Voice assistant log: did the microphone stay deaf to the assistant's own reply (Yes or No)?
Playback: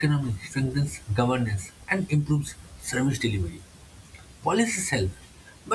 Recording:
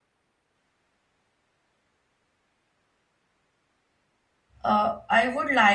Yes